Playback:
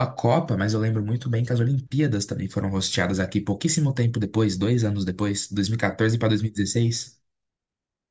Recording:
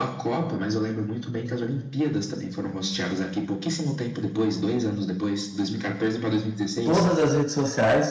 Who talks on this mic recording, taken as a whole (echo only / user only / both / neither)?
both